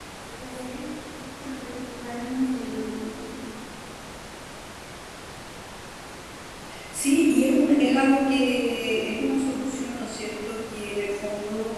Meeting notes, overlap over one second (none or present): none